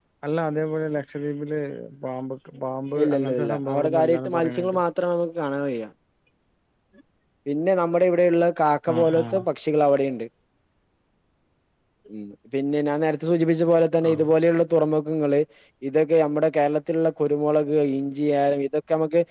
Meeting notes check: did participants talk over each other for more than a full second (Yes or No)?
Yes